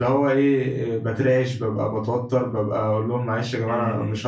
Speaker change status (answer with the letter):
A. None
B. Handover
A